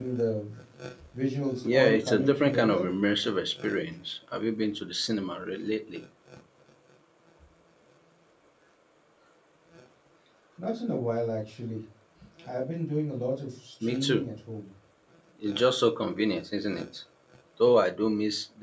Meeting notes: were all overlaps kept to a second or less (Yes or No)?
No